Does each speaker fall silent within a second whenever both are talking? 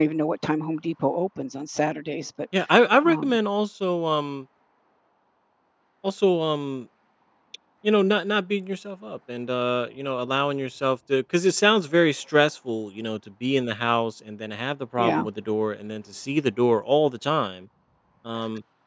Yes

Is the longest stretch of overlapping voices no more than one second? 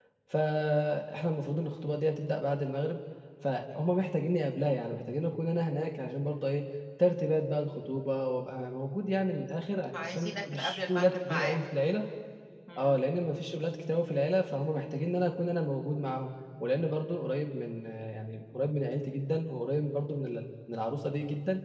No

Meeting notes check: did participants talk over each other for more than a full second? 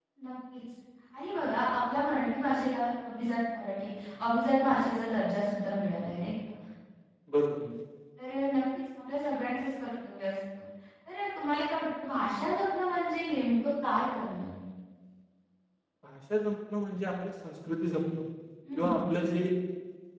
No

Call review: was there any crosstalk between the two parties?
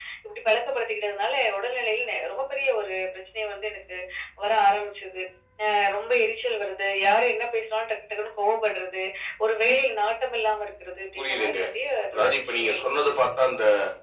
Yes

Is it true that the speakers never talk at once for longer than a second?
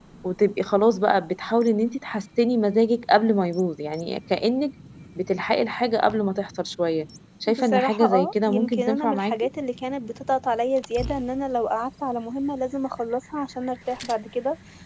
No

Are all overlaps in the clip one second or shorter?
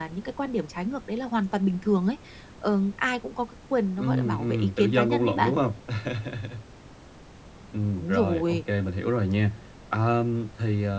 No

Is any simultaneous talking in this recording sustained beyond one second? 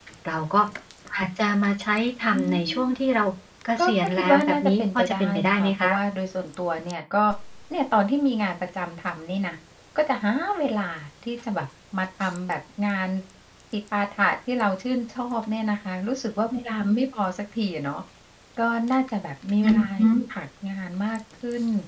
Yes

